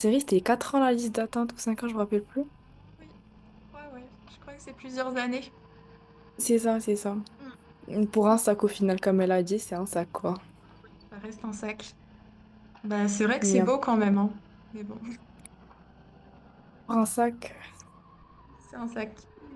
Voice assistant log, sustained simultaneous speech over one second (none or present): none